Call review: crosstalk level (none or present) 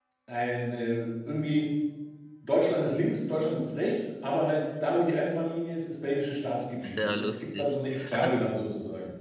present